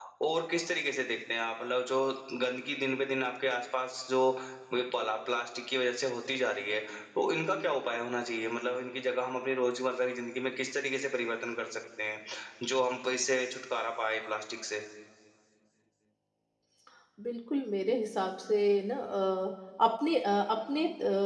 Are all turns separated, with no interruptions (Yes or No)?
Yes